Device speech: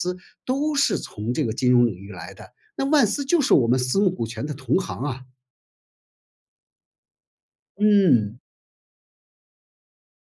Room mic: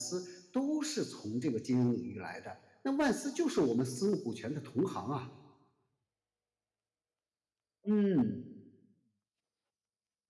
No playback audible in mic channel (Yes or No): No